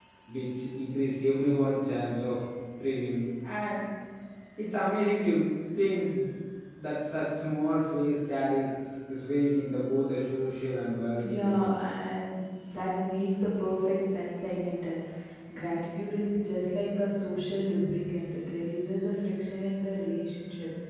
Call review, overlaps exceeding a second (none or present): none